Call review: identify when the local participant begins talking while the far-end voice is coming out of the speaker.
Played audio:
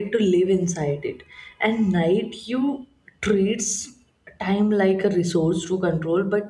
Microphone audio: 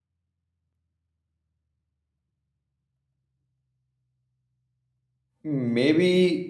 5.4 s

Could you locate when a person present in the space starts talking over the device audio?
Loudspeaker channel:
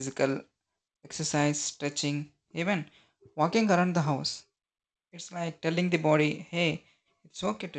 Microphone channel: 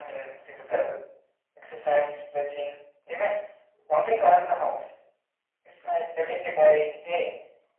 none

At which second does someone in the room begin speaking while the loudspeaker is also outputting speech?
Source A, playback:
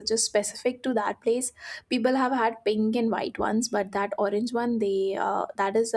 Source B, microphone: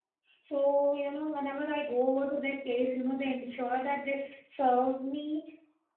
0.4 s

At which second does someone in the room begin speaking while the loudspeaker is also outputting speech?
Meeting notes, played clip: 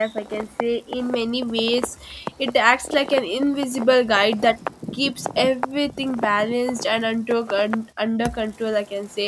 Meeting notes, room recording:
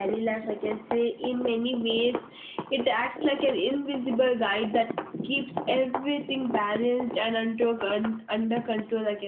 none

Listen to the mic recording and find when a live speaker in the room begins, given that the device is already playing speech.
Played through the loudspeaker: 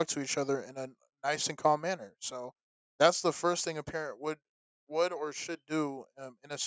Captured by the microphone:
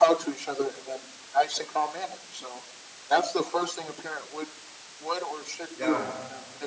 5.7 s

